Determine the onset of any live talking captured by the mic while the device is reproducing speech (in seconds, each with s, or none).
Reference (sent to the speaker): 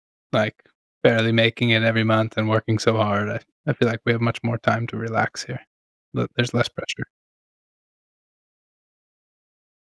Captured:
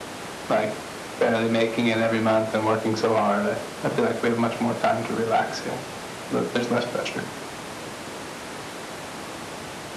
none